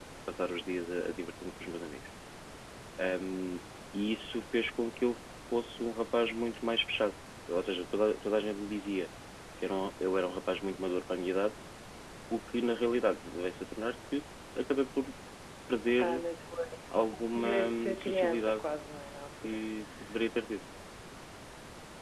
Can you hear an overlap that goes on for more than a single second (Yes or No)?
Yes